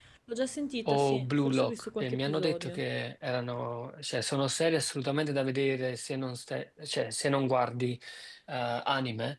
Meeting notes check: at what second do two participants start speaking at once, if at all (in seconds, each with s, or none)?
0.8 s